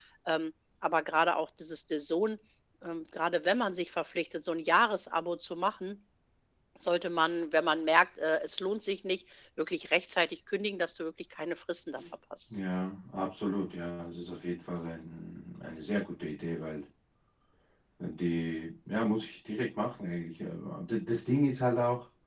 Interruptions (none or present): none